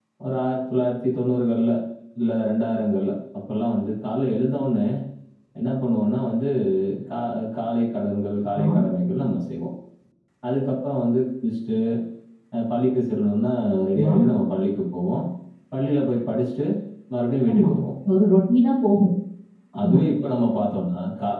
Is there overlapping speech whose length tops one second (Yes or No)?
No